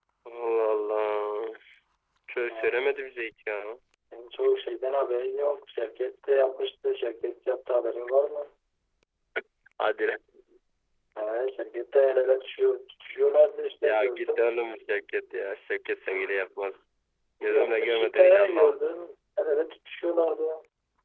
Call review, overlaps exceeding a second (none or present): present